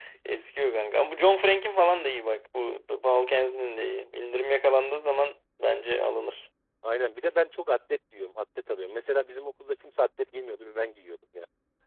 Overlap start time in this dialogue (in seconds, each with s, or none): none